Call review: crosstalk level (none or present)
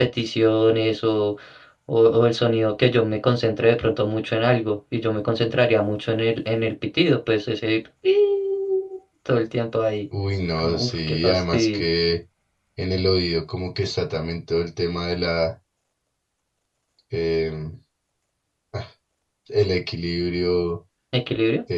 present